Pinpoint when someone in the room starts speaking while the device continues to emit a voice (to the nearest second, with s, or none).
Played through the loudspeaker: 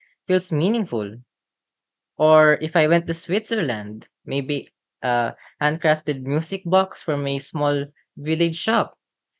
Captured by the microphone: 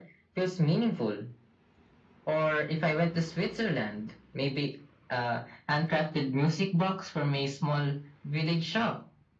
none